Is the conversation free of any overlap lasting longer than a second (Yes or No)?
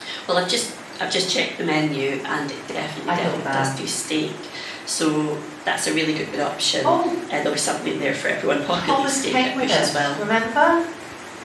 No